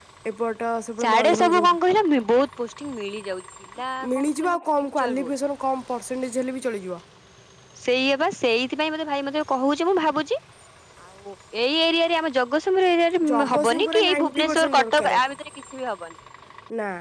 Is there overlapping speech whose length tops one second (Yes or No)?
Yes